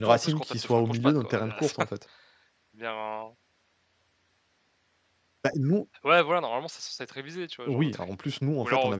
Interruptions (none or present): present